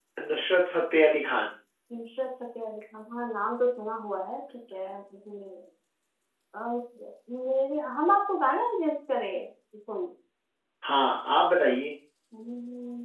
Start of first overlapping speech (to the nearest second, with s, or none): none